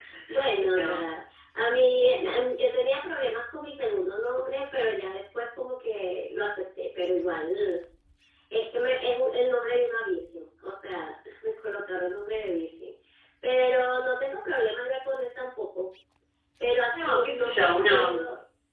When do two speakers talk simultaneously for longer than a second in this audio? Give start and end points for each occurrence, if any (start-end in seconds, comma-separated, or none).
16.9-18.2